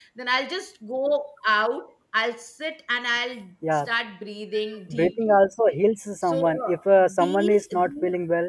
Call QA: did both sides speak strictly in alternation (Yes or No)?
No